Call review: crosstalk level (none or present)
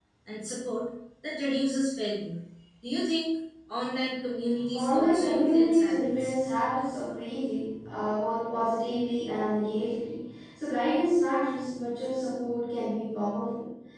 present